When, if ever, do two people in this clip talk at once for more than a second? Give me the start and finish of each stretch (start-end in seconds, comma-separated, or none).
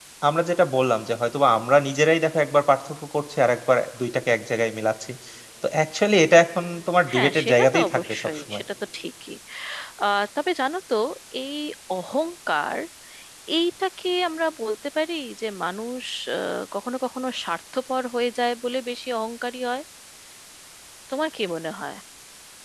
7.1-8.6